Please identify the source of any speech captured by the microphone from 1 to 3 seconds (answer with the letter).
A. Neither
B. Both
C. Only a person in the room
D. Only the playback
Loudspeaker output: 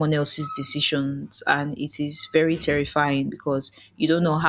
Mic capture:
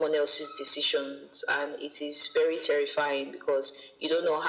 D